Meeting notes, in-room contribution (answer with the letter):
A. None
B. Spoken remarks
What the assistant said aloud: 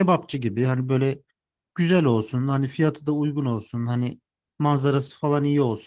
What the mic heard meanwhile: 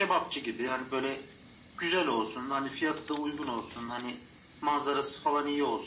A